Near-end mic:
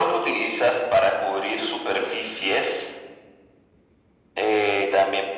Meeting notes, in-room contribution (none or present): none